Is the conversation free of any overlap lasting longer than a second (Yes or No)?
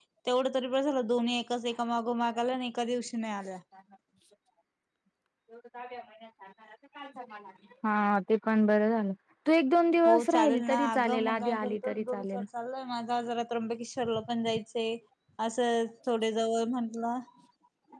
No